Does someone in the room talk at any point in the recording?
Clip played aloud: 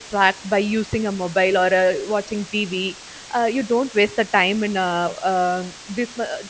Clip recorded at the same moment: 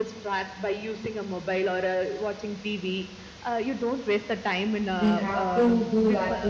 Yes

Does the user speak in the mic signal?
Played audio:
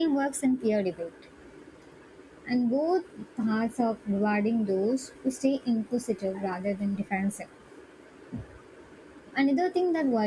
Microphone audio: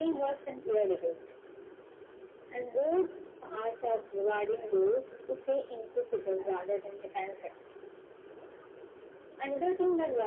No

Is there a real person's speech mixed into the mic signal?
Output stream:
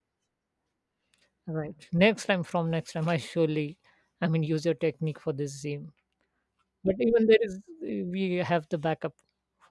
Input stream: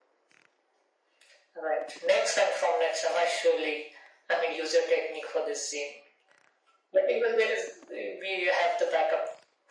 No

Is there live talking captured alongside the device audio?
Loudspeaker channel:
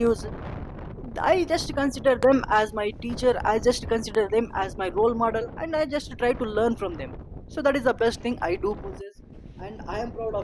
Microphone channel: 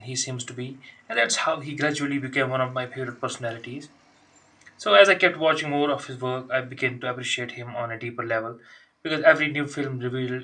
Yes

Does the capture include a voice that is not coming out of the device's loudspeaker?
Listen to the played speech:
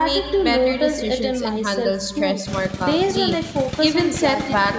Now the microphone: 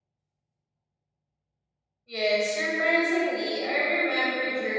Yes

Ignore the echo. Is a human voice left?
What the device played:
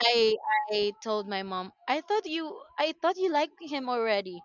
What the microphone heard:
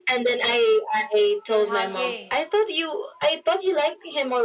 Yes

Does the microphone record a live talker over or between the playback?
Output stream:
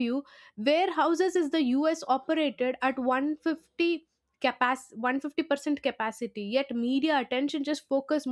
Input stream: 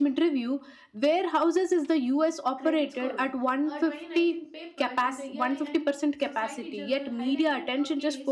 Yes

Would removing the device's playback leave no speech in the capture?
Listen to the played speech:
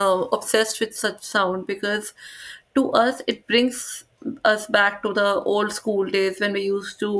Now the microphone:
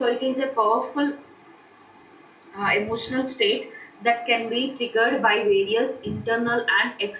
No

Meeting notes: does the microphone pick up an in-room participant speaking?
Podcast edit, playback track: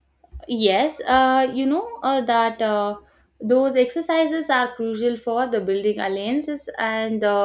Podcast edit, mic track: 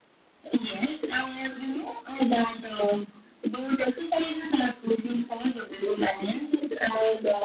No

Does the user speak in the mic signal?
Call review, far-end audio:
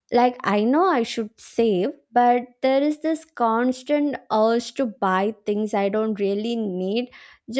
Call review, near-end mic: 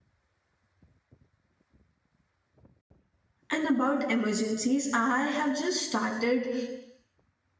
Yes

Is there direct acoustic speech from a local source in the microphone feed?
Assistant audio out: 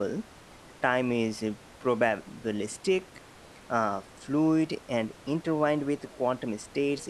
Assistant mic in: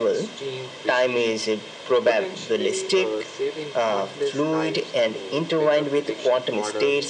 Yes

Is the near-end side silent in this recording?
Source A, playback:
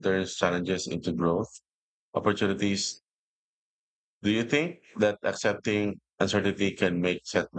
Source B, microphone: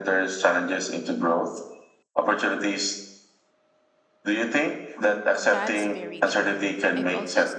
No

